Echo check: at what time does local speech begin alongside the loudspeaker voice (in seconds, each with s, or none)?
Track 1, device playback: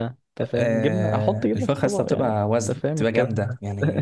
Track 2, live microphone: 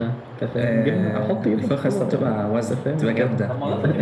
3.0 s